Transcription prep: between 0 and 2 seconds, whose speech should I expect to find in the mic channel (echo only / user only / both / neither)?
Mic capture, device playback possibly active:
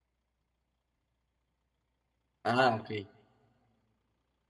neither